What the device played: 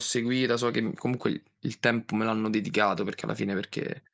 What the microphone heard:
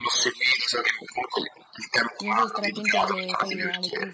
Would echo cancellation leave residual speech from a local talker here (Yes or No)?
Yes